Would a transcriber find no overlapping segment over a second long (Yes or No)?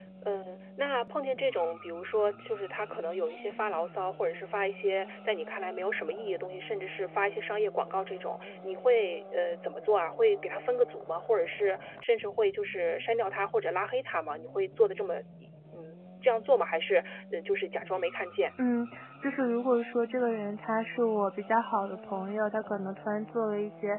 Yes